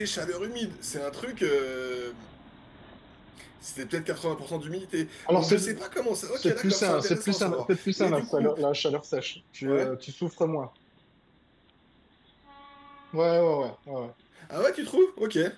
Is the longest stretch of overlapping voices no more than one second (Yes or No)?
No